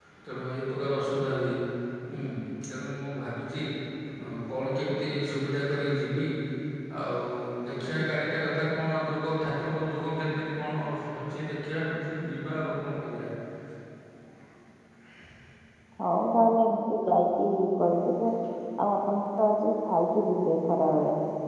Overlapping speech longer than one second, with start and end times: none

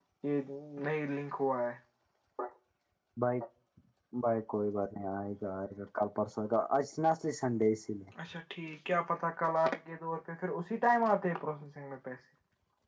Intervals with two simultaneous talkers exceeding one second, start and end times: none

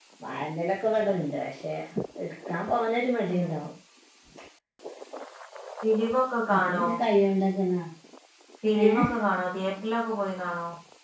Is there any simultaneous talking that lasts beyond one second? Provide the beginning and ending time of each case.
none

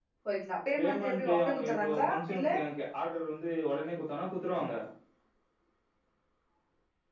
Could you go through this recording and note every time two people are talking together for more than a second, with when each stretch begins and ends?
0.8-2.6

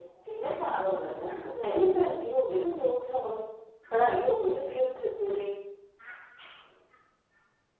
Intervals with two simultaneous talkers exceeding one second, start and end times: none

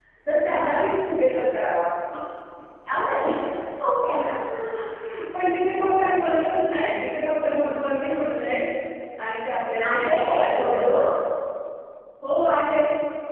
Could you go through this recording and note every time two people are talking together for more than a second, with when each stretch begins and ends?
9.9-11.1

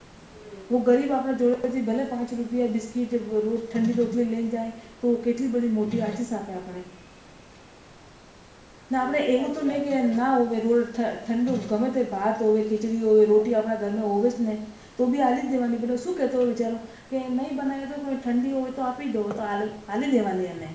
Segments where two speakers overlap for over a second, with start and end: 9.0-10.4

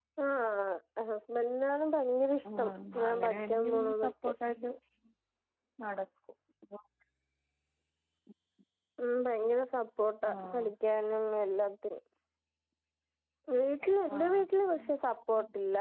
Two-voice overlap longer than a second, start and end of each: 2.6-4.3

